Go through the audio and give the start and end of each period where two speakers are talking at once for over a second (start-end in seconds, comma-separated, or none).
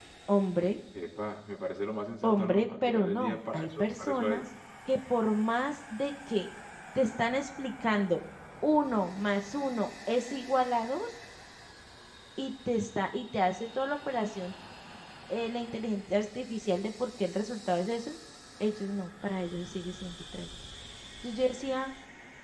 2.2-4.4